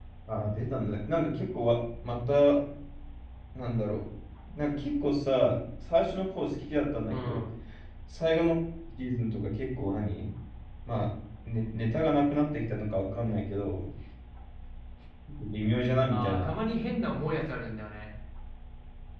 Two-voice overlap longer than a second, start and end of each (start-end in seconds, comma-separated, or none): none